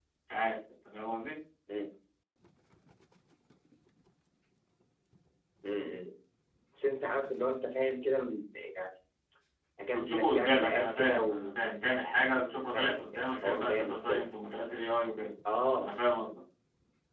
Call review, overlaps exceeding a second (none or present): present